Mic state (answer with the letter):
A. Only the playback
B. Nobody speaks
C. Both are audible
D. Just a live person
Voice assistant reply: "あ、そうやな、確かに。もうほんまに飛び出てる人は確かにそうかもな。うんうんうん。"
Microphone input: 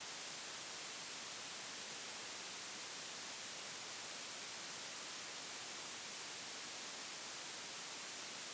B